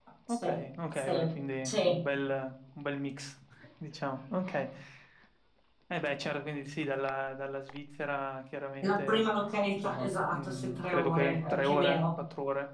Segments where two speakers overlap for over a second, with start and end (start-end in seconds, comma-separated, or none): 9.8-12.1